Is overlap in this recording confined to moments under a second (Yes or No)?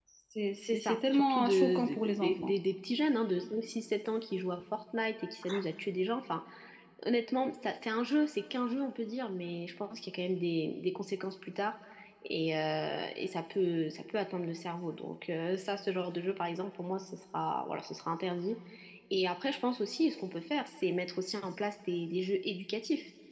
No